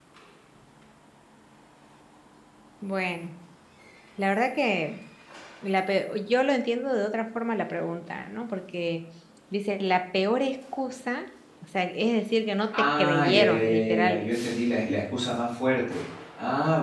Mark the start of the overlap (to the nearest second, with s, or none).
13 s